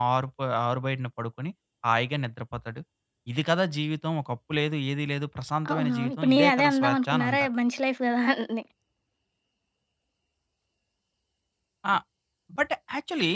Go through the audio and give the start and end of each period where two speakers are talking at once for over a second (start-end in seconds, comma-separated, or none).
5.7-7.5